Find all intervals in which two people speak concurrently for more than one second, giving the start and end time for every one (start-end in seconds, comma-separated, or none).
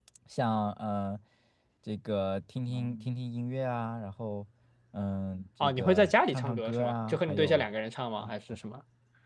5.6-7.7